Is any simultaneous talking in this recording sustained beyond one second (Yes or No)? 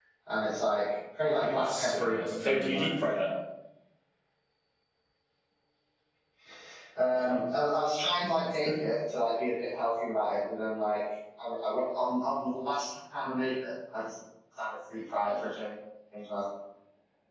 Yes